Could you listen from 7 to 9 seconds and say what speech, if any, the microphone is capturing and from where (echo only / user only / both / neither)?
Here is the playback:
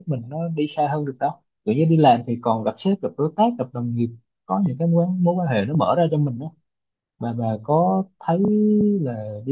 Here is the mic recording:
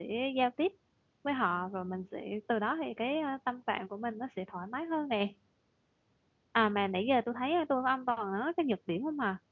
user only